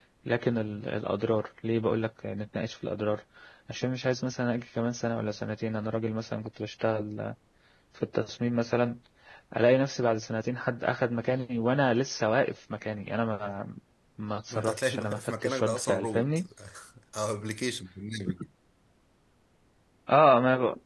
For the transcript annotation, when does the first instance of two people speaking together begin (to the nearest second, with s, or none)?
15 s